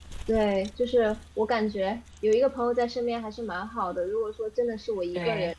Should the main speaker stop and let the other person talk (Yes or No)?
No